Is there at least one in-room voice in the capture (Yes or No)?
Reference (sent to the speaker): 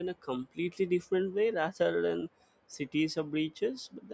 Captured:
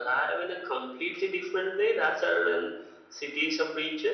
No